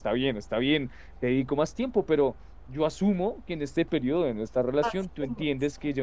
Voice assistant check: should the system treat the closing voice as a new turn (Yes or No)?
No